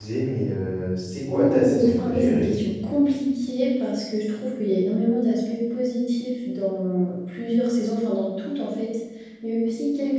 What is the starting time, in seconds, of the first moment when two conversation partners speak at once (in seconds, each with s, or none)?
1.3 s